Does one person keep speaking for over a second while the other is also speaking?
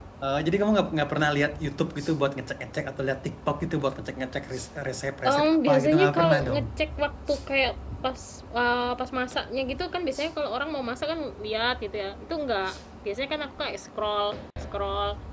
Yes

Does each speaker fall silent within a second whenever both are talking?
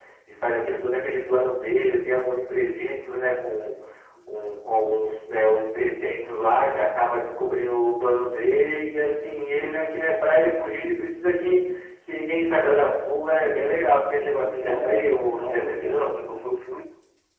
No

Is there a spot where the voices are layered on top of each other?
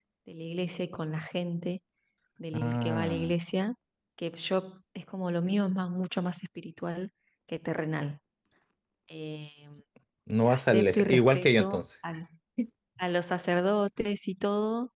Yes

